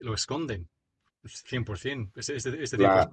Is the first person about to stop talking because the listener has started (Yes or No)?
No